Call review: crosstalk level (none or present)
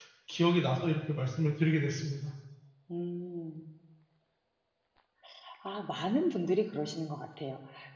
none